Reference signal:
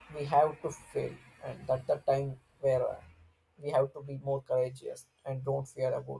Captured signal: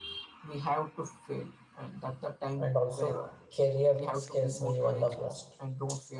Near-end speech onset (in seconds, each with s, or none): 2.5 s